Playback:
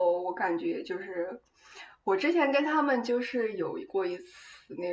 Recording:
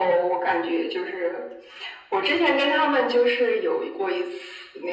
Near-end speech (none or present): none